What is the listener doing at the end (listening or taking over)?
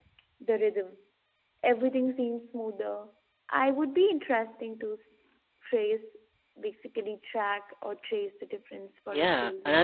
taking over